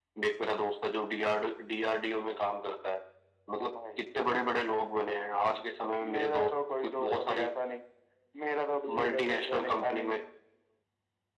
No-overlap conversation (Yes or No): No